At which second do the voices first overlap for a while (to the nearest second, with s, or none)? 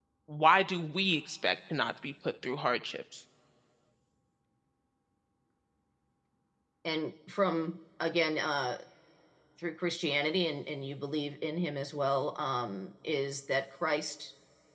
none